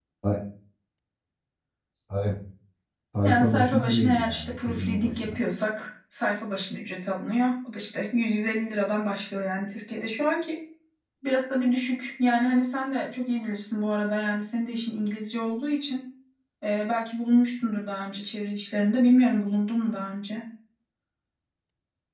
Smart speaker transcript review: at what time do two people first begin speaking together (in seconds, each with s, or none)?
3.2 s